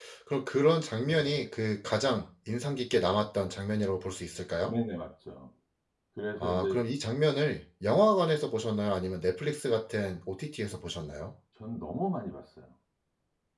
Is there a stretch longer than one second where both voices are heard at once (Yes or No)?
No